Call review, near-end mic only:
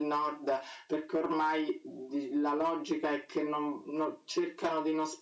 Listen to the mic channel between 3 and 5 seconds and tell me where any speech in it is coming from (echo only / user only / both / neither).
echo only